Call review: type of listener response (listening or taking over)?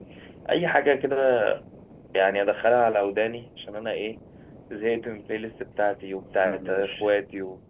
listening